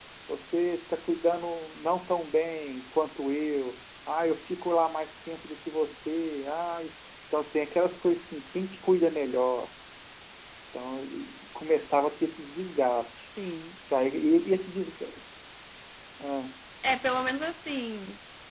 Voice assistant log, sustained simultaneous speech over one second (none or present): none